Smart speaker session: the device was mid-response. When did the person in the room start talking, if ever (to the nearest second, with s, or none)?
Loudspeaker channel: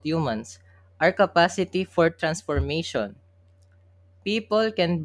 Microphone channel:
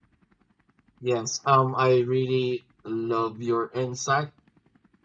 1 s